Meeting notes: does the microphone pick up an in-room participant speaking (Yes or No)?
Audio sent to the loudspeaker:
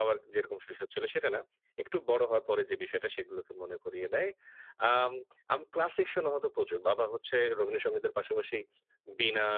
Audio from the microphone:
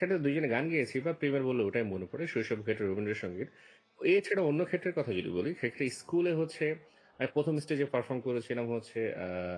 Yes